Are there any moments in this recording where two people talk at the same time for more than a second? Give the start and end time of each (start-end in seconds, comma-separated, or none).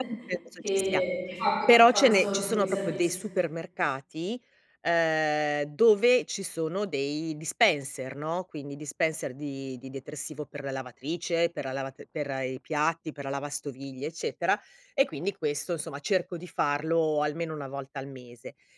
1.7-3.1